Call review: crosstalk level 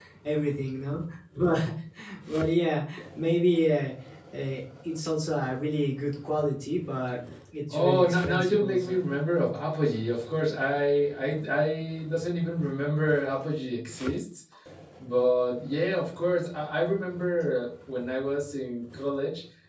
present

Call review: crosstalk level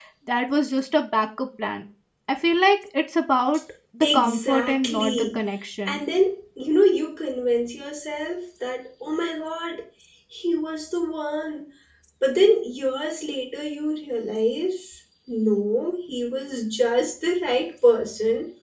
present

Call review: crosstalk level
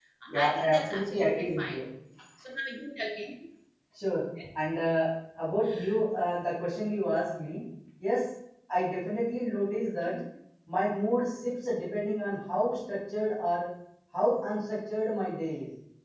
present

